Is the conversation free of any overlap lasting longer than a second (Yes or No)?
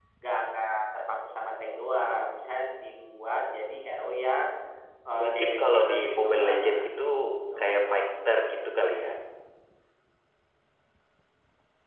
No